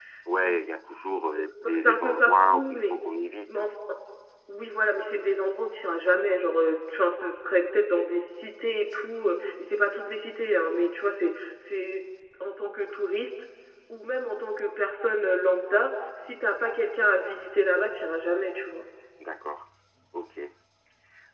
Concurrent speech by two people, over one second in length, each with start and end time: 1.6-2.9

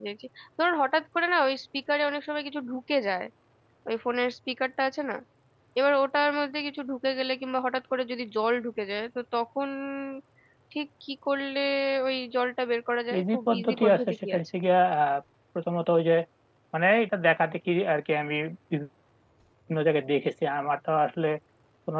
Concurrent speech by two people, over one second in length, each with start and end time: 13.2-14.4

